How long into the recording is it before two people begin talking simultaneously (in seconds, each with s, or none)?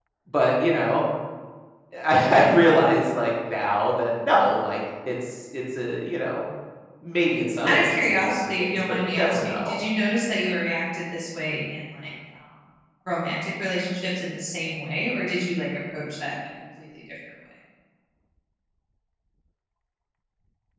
7.7 s